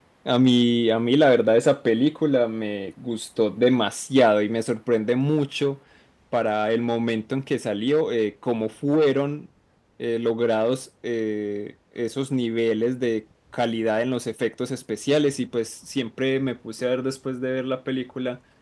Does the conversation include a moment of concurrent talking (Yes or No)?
No